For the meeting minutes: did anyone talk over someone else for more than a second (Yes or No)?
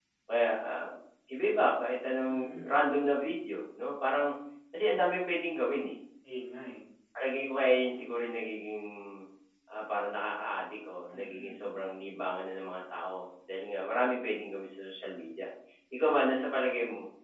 No